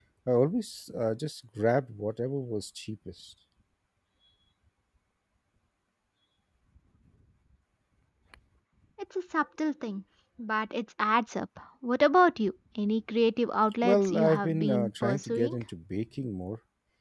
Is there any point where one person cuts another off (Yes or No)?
Yes